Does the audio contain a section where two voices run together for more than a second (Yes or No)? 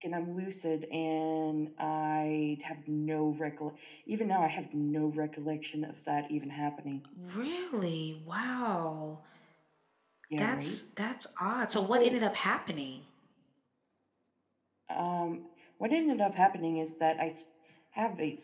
No